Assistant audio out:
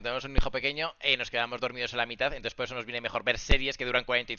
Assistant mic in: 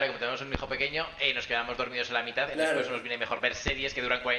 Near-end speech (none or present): present